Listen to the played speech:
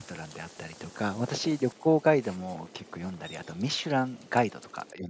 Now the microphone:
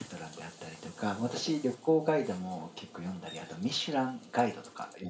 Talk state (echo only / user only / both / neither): echo only